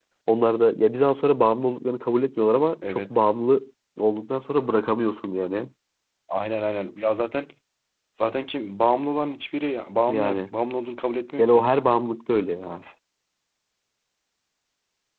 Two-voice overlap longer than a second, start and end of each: none

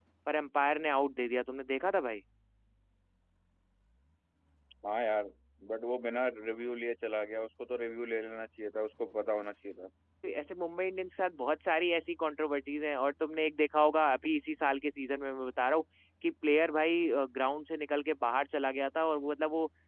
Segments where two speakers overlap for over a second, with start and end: none

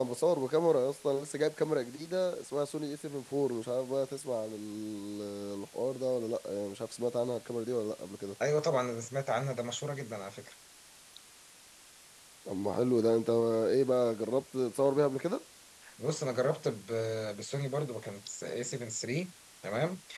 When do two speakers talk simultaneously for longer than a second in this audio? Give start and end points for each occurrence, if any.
none

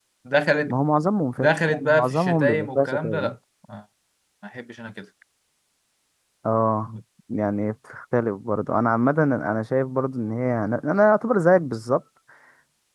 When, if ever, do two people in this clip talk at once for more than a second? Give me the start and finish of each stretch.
1.4-3.3

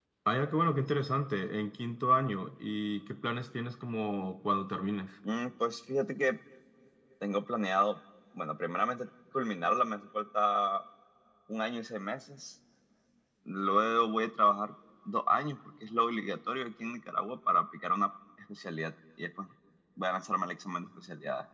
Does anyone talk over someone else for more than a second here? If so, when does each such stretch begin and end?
none

